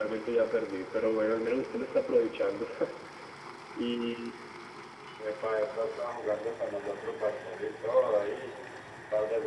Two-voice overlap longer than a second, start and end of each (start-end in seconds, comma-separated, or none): none